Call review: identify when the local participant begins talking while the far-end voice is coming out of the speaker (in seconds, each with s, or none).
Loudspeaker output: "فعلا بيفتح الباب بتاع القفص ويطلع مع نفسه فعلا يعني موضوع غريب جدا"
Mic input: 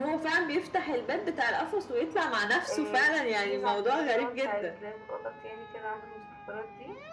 2.7 s